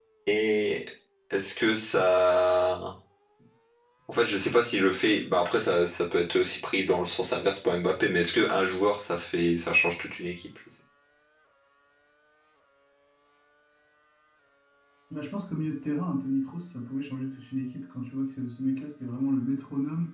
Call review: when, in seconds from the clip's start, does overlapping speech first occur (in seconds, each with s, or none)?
none